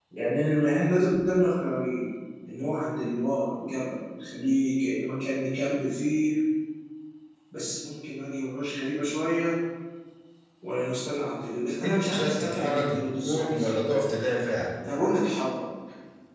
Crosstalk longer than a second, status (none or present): present